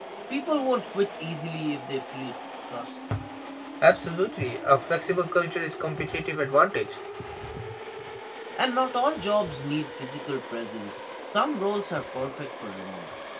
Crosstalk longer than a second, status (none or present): none